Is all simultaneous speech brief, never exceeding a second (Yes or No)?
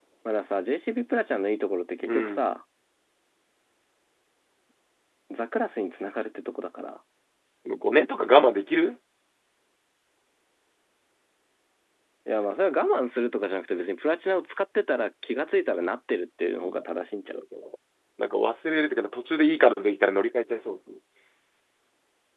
Yes